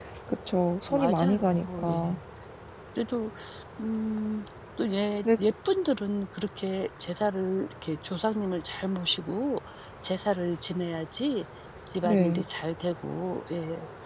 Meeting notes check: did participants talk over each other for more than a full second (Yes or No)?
Yes